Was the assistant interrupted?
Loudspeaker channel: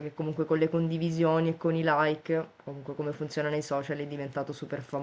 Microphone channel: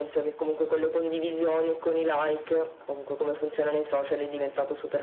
No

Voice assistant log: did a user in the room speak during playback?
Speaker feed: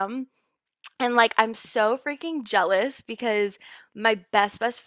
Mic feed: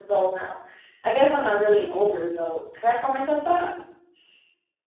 Yes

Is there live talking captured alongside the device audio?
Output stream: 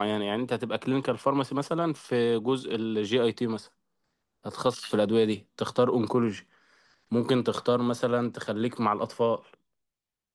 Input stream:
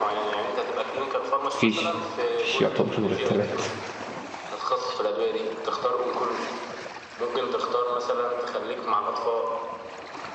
Yes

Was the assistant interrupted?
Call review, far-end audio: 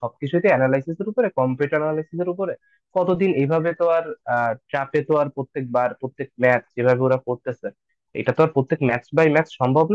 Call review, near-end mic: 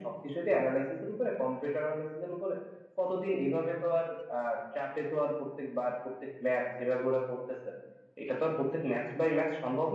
No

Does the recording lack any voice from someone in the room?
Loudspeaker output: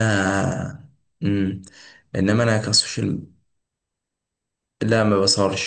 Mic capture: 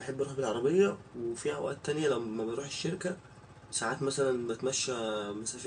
No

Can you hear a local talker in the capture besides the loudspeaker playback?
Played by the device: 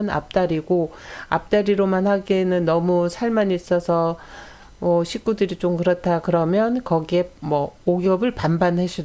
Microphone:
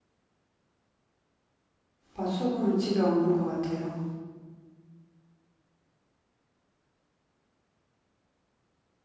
Yes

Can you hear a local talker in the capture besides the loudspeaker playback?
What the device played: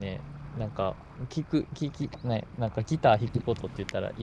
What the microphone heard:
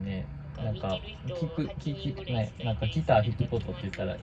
Yes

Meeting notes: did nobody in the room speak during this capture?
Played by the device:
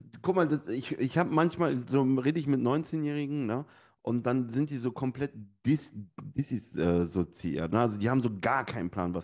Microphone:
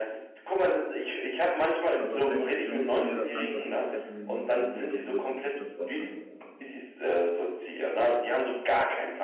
No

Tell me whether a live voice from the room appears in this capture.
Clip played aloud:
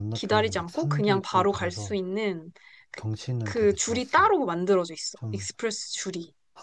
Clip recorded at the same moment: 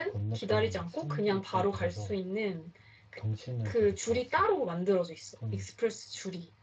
No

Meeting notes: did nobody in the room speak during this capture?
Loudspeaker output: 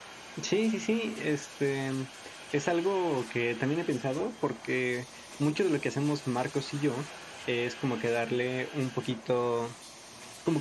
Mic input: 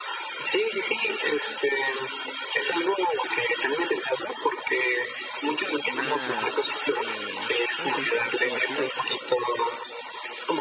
No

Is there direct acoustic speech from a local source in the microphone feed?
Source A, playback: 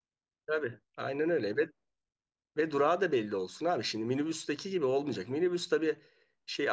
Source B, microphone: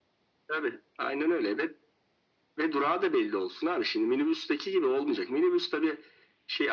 No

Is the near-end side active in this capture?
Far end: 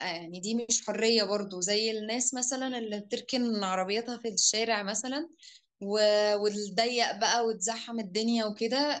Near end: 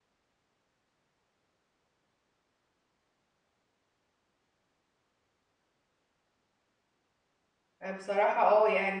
Yes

